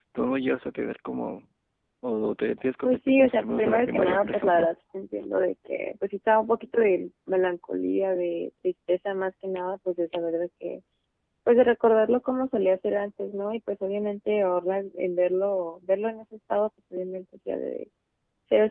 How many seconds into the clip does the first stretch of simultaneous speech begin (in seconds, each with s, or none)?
2.9 s